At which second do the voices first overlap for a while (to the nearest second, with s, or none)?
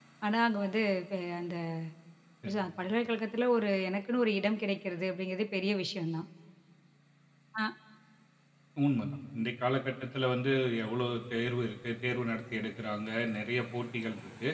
none